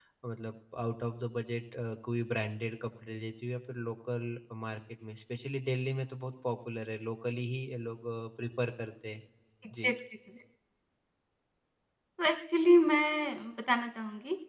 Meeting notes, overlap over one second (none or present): none